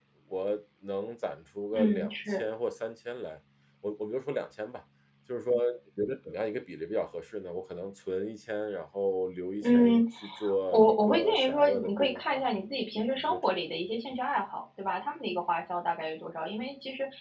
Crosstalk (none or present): present